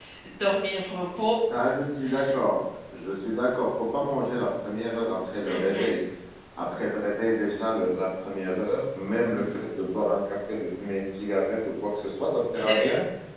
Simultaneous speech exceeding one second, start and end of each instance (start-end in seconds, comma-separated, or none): none